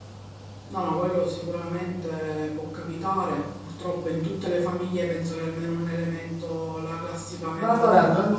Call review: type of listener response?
taking over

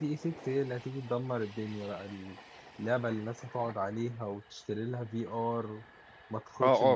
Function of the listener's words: taking over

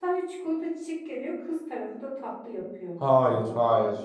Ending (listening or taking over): taking over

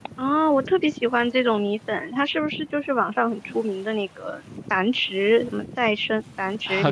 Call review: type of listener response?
taking over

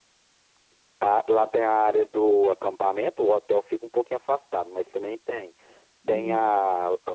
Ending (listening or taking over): listening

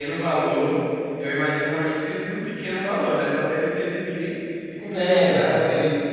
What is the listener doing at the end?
taking over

